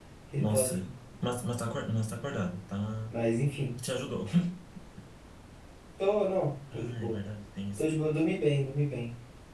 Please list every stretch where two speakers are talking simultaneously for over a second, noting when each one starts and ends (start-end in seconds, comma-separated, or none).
none